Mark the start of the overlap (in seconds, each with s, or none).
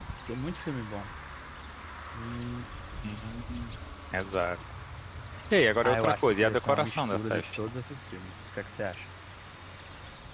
5.8 s